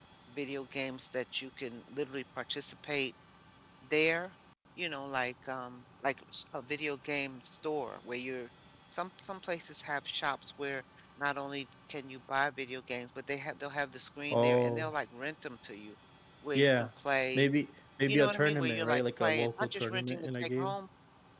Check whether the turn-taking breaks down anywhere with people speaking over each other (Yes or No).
Yes